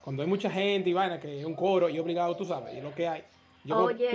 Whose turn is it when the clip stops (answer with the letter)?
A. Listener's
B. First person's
B